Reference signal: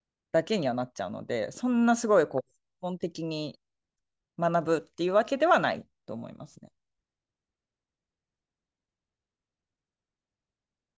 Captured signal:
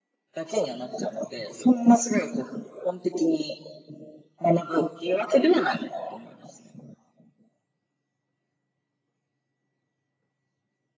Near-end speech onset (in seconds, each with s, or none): none